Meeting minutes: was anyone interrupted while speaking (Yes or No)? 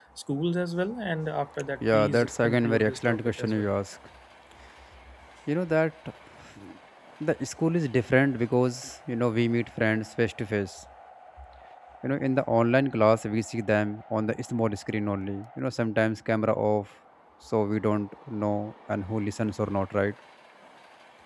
Yes